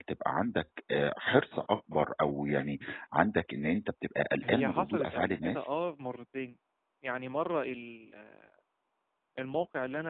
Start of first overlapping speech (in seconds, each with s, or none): 4.4 s